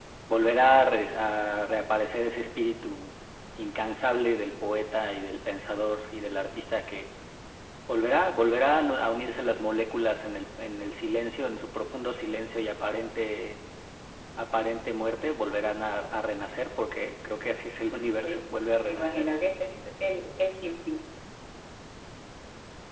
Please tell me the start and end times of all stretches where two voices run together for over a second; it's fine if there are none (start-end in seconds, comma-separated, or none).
none